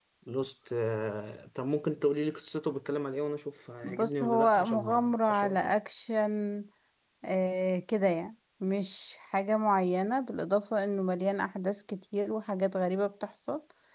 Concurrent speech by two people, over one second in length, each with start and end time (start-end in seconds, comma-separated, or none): 3.8-5.7